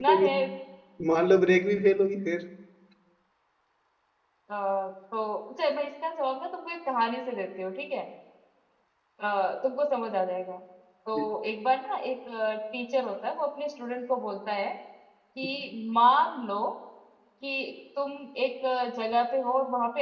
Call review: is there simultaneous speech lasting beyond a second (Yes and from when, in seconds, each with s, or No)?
No